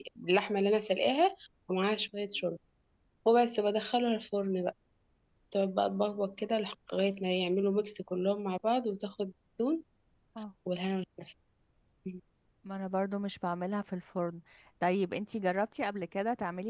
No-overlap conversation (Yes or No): Yes